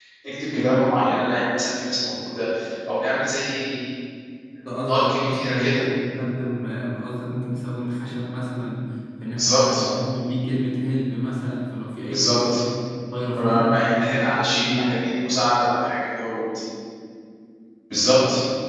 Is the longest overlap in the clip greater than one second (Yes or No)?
Yes